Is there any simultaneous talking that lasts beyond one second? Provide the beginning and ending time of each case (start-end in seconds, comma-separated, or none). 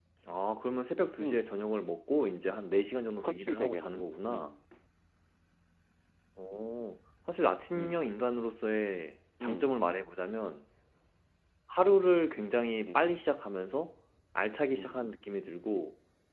3.2-4.6